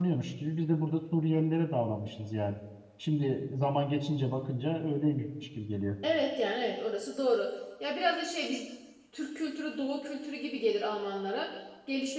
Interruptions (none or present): none